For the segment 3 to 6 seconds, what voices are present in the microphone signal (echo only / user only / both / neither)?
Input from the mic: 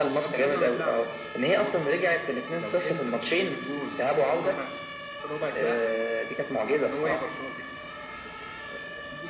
echo only